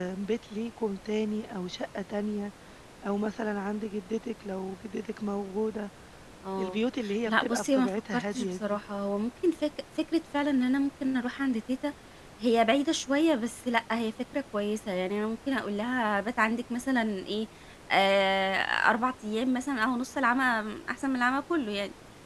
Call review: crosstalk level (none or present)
present